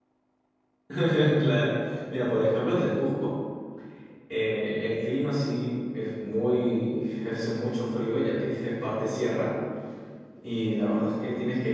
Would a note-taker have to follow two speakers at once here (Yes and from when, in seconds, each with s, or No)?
No